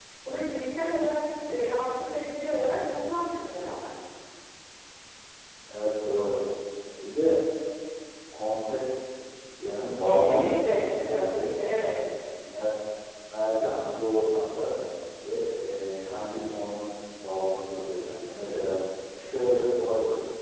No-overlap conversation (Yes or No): No